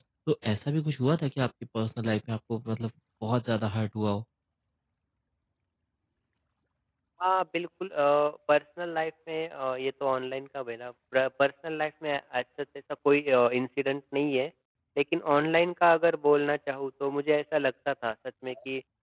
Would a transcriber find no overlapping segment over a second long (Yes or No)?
Yes